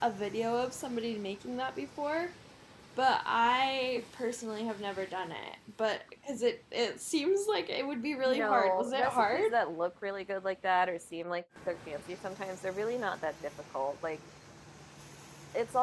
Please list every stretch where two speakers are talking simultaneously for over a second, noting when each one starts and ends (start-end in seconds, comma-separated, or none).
8.3-9.5